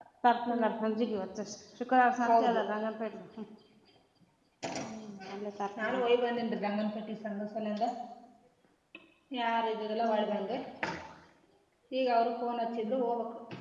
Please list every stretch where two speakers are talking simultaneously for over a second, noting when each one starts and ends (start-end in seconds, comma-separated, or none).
none